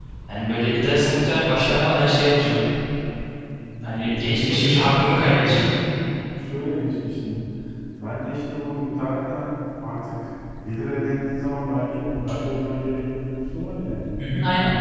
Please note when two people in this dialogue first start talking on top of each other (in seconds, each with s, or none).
4.2 s